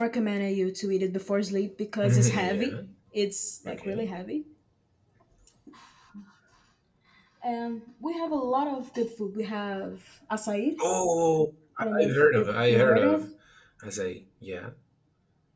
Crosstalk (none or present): present